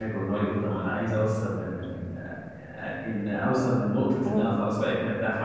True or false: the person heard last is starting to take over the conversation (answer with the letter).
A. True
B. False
B